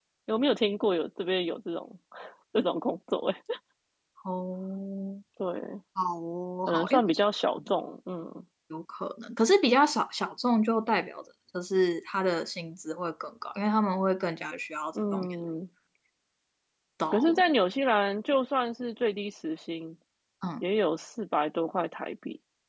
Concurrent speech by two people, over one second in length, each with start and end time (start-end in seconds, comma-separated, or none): none